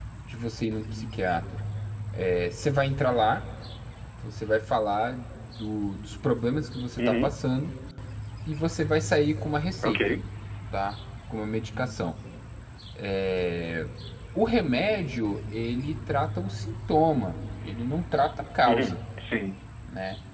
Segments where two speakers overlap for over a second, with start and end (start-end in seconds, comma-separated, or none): none